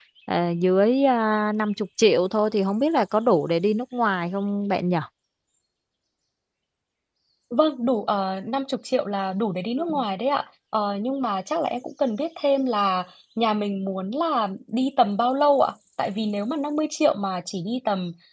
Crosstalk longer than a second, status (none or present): none